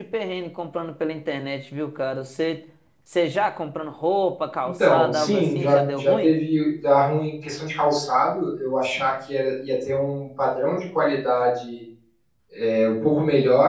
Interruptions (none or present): present